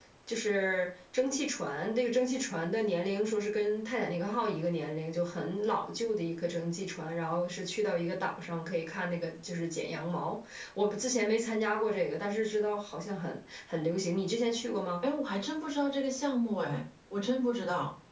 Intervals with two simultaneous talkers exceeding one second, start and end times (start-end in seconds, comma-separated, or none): none